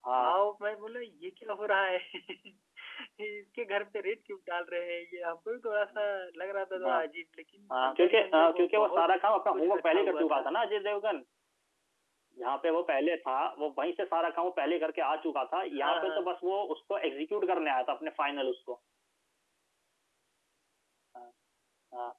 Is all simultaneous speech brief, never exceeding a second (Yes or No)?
No